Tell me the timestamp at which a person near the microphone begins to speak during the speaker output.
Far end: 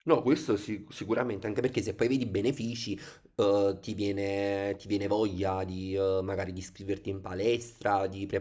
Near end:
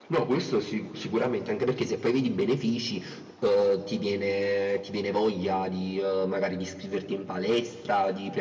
none

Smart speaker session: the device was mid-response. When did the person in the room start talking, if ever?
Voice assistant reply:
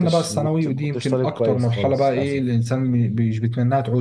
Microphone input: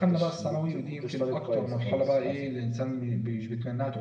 none

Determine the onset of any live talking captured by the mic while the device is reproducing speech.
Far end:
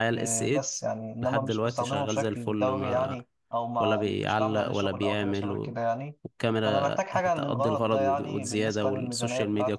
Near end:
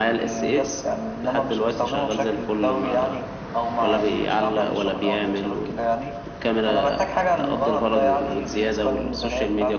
none

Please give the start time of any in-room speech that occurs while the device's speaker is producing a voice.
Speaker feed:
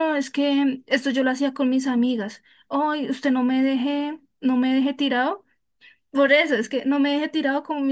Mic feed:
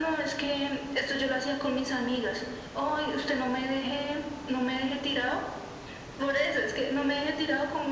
none

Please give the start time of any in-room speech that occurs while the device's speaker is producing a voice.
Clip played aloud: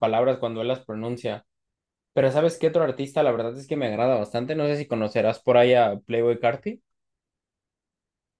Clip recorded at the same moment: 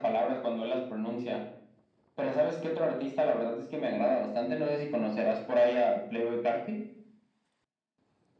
none

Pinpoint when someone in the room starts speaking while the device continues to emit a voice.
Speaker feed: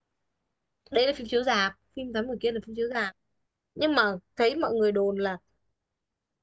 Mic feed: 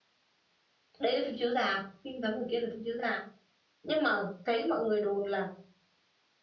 none

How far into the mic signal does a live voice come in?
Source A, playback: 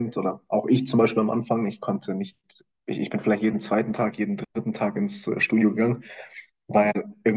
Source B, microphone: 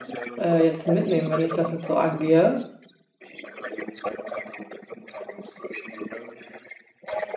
0.4 s

